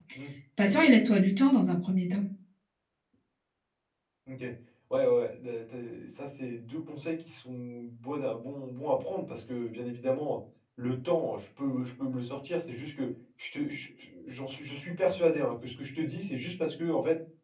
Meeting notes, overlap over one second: none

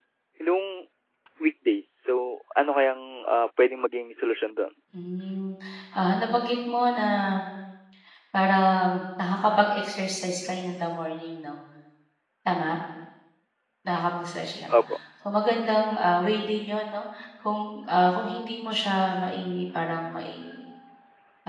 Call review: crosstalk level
none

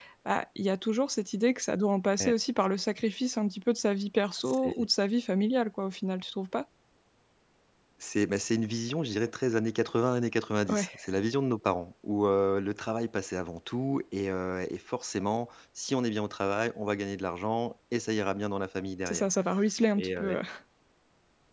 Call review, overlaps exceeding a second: none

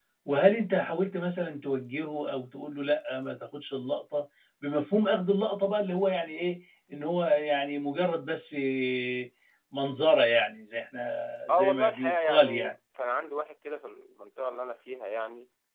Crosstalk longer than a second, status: present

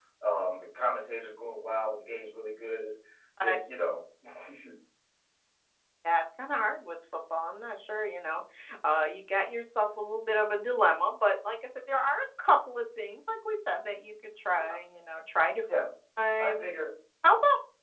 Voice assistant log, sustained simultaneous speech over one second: none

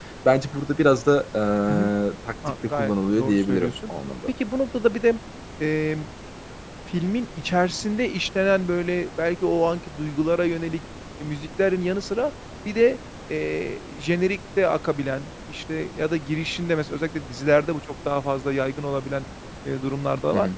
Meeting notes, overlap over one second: present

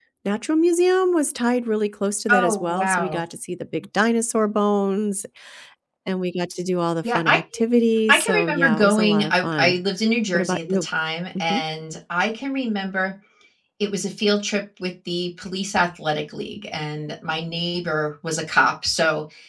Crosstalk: present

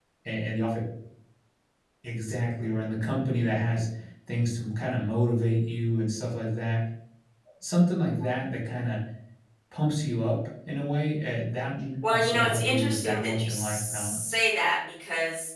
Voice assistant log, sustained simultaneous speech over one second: present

